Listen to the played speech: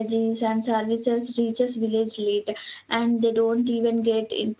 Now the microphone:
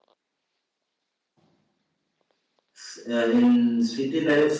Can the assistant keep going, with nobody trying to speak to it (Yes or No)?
No